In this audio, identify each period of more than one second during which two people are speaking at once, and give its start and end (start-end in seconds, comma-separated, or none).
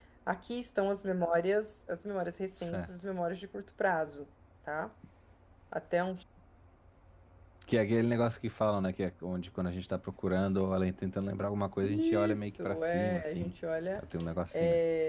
11.8-13.5